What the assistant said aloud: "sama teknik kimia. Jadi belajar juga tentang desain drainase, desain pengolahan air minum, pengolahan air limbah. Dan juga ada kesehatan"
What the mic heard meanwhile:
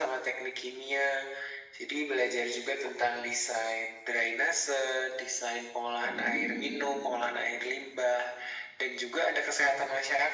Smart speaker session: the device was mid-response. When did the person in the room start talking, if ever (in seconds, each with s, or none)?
6.0 s